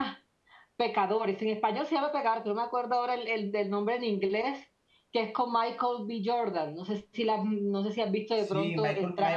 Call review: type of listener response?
taking over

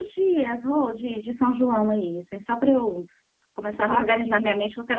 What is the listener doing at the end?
listening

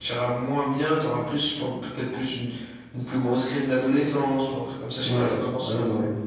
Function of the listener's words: taking over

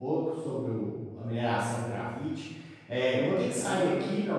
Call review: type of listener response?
listening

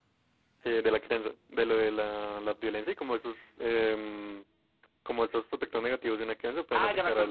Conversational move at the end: taking over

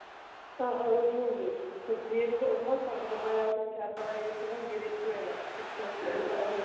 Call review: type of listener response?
listening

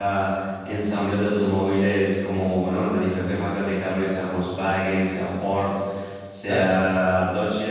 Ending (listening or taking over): listening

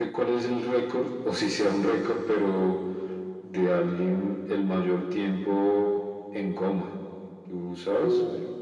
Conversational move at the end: taking over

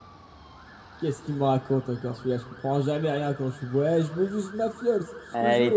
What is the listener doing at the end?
taking over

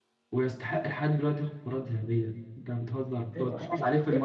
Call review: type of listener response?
listening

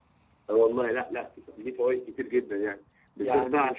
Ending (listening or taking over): listening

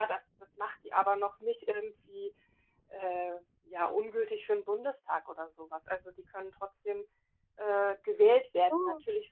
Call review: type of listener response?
listening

